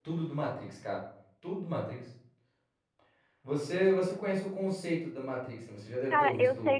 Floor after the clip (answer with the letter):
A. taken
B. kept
A